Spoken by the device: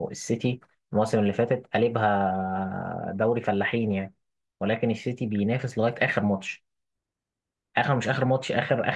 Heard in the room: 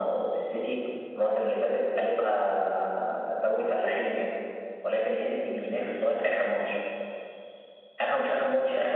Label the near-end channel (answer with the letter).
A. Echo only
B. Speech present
A